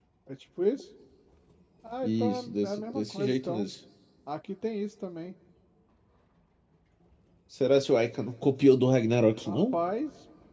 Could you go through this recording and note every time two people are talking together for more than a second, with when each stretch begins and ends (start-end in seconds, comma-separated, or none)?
2.0-3.6